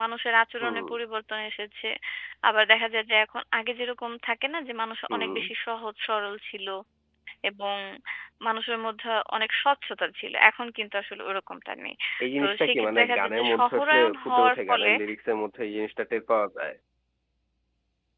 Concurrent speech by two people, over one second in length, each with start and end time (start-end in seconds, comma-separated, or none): 12.4-14.9